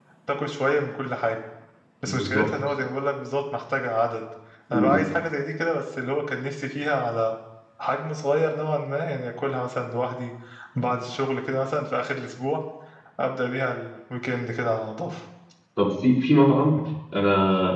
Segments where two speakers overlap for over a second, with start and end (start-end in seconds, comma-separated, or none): none